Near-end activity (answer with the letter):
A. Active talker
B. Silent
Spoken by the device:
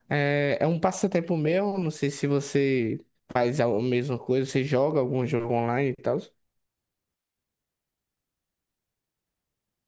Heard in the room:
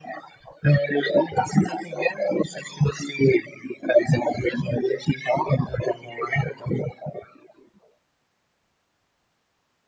B